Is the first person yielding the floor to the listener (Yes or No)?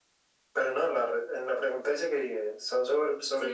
Yes